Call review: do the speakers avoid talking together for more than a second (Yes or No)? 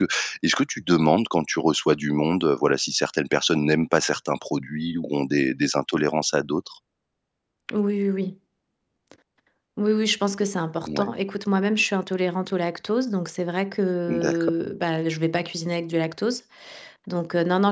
Yes